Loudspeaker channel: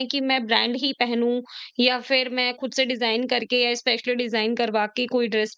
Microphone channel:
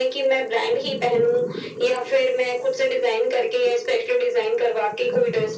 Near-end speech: none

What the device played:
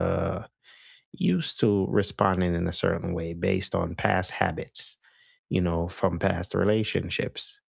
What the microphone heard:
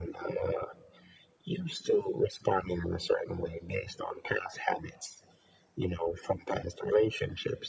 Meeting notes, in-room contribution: none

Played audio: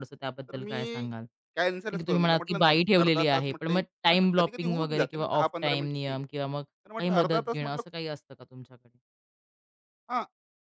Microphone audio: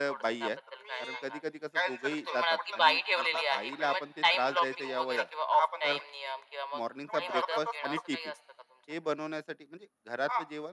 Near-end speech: present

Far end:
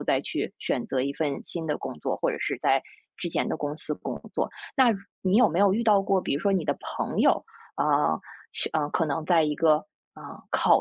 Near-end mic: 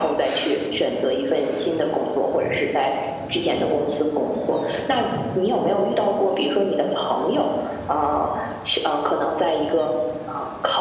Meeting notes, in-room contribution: none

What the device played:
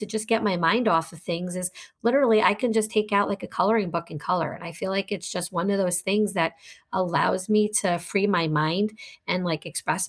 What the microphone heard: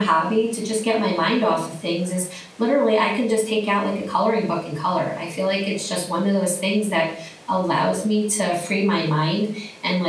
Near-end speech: none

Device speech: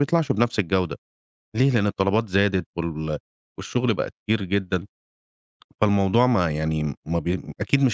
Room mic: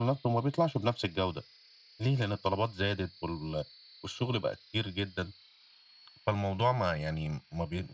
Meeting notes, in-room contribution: none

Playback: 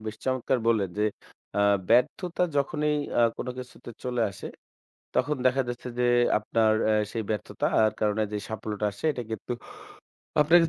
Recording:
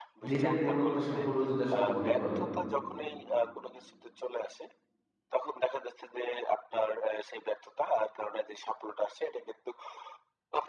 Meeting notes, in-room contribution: present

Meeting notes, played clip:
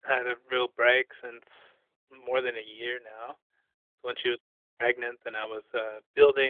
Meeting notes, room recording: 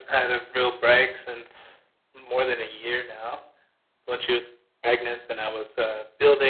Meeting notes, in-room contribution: none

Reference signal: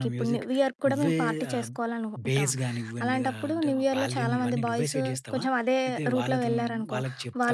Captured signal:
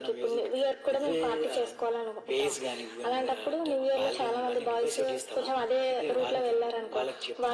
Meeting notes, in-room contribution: none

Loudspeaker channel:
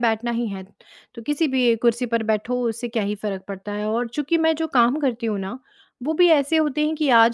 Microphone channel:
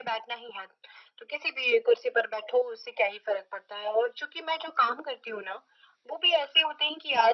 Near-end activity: none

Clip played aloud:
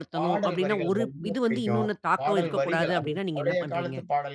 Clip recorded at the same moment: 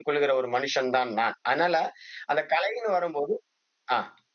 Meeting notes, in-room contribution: present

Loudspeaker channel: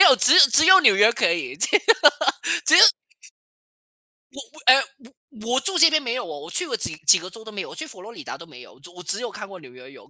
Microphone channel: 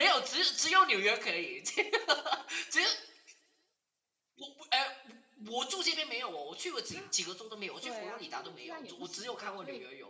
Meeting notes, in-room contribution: present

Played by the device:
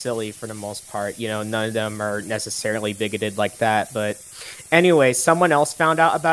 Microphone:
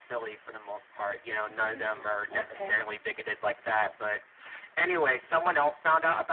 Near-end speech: present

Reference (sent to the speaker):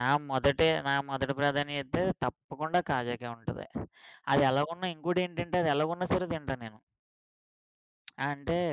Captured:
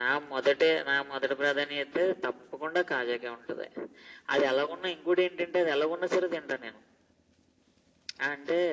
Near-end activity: none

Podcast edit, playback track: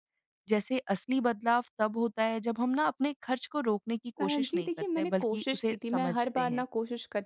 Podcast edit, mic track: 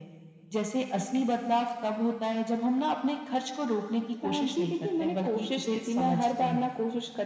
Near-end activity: none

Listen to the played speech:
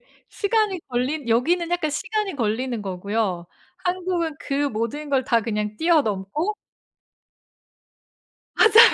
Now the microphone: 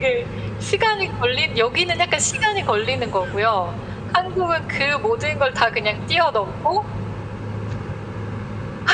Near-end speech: none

